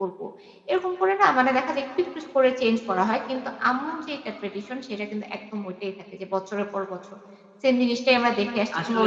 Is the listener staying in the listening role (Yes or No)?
No